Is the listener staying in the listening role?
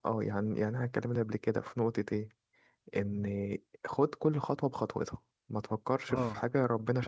No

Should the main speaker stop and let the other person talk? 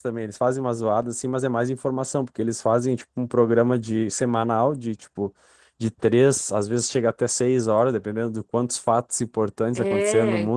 No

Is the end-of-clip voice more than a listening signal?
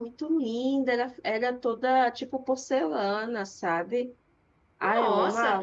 Yes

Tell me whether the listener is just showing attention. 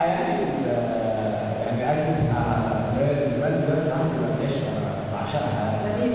No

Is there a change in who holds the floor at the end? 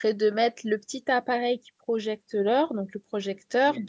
No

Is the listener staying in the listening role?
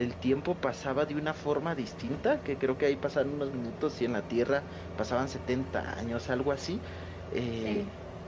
No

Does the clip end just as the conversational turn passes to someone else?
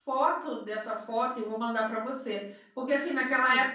No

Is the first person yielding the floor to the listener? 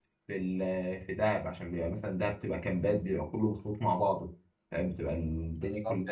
Yes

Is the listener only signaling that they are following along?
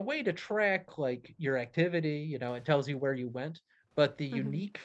Yes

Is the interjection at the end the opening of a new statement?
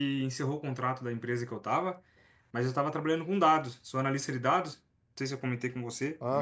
No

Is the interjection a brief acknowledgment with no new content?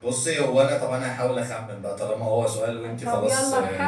No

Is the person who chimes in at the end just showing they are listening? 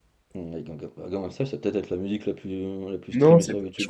No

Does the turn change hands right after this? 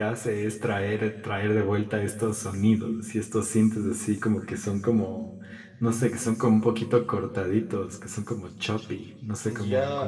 Yes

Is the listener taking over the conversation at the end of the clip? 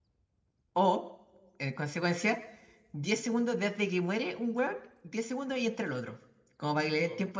No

